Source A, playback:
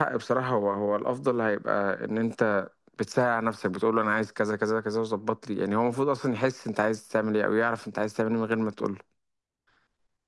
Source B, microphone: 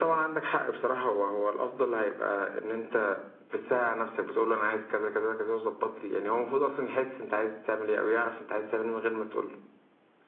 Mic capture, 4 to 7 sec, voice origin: echo only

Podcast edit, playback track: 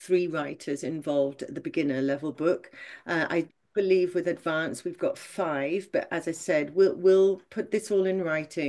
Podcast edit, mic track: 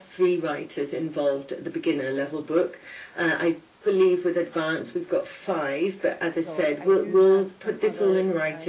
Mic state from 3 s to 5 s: echo only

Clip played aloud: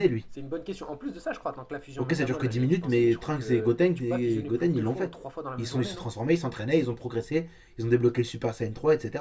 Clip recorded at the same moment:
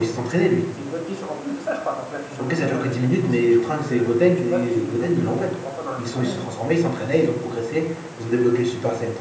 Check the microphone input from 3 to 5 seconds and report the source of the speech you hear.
echo only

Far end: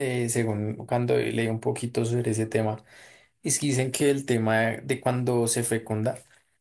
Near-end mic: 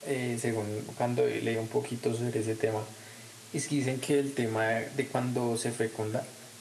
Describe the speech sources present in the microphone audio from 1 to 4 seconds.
echo only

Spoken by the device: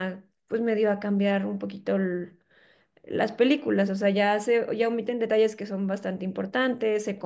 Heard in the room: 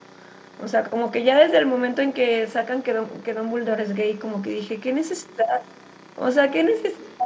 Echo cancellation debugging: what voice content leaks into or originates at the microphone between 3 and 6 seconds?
user only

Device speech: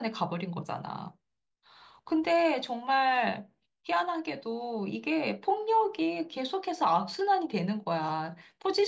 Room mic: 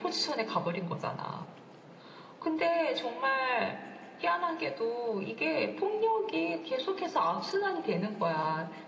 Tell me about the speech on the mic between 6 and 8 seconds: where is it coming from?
echo only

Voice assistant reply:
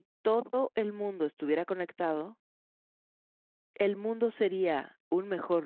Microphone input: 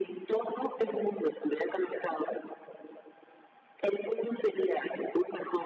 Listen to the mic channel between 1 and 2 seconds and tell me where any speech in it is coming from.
echo only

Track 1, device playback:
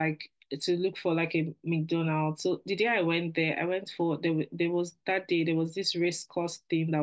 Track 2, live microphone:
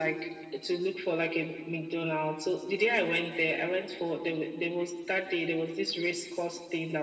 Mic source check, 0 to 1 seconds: echo only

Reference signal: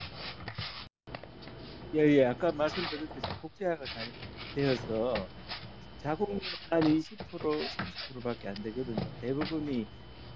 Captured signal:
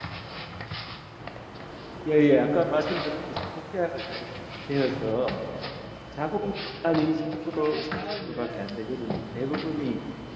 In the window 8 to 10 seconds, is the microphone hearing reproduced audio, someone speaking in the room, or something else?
both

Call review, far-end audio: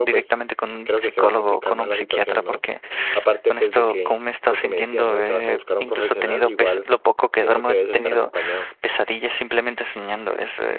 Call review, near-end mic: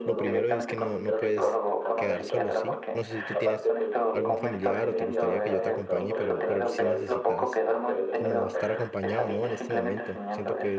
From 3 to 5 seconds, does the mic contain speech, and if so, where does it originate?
both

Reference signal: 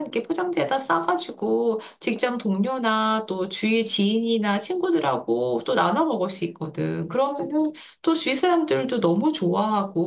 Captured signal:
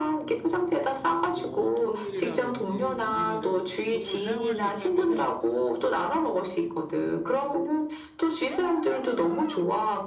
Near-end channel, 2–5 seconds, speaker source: both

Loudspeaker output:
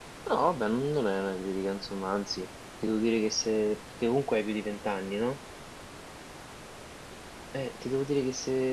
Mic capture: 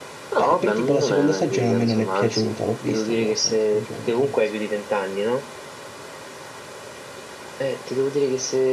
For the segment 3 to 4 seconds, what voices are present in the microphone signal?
both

